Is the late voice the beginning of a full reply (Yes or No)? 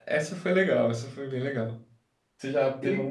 No